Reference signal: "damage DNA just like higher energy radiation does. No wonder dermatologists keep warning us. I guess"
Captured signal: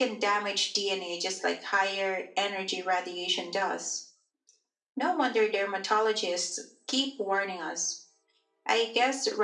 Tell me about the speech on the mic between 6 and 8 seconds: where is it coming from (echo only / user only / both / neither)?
echo only